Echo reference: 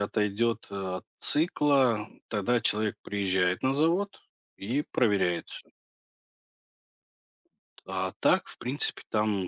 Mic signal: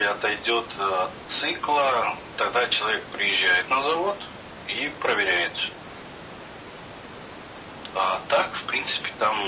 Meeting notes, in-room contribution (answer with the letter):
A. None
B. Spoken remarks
A